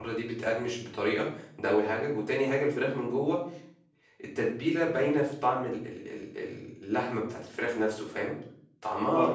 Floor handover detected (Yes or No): Yes